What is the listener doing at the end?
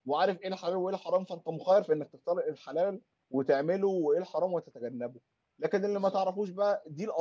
listening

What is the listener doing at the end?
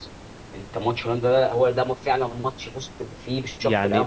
taking over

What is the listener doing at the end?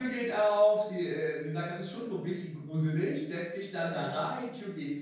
listening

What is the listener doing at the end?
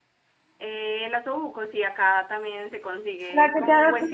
taking over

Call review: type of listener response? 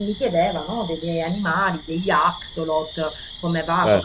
listening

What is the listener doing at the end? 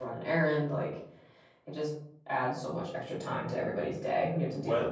taking over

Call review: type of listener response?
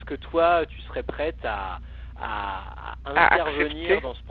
listening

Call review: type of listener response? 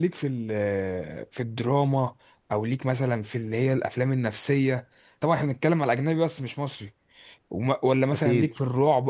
listening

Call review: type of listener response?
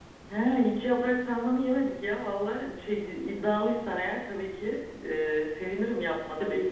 taking over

